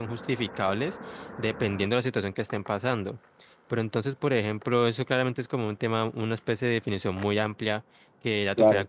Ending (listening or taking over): listening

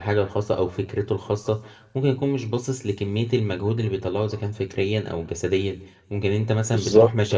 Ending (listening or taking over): listening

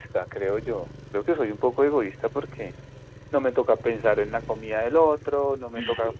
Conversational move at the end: listening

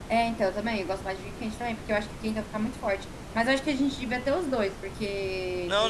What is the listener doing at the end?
taking over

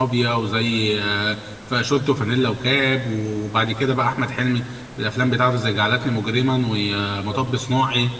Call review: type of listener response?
listening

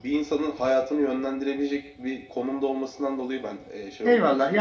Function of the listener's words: taking over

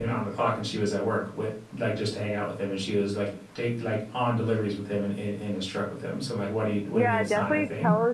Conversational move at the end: taking over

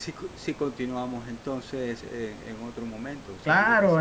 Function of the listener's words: taking over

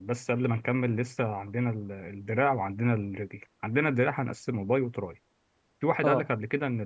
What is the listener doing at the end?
listening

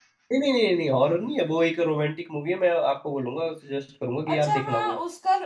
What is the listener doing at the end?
taking over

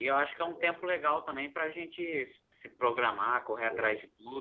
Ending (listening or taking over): listening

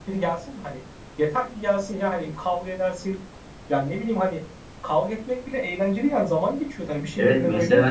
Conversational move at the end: taking over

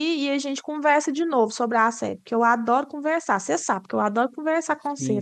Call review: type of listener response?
taking over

